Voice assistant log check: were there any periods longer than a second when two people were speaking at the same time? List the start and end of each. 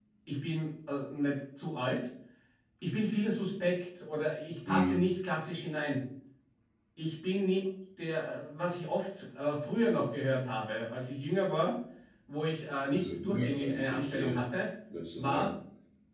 12.9-14.4

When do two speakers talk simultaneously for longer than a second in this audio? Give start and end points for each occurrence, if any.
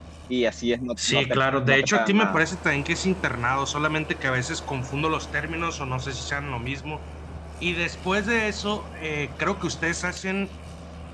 1.1-2.4

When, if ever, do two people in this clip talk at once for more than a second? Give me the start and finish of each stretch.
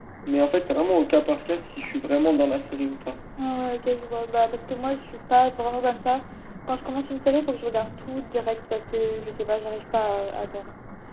none

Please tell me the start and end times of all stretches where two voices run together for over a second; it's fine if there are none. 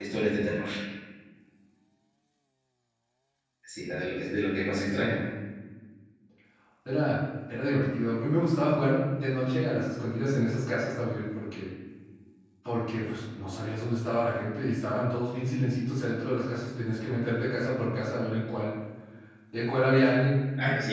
none

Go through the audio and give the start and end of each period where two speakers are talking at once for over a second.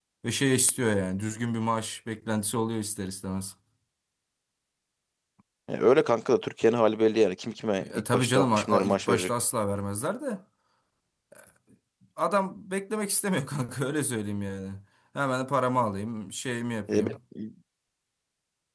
8.0-9.3

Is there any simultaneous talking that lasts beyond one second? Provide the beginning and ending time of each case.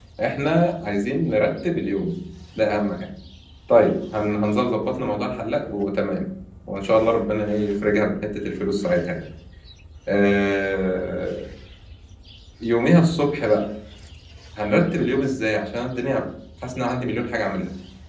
none

